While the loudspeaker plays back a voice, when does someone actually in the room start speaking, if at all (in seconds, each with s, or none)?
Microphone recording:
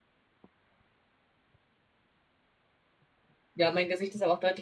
3.5 s